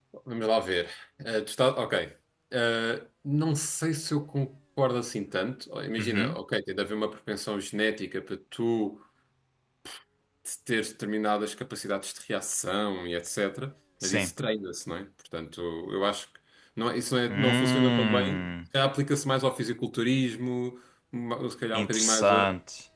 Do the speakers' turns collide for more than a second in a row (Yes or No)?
Yes